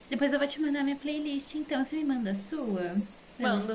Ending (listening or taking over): taking over